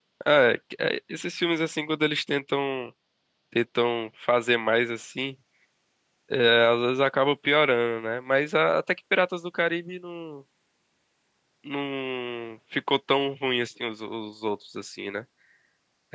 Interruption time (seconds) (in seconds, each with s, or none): none